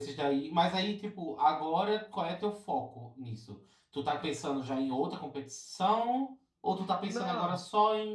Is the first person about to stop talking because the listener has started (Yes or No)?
No